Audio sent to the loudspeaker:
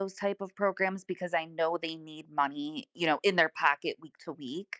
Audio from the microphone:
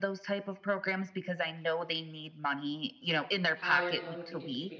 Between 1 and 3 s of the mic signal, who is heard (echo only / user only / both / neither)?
echo only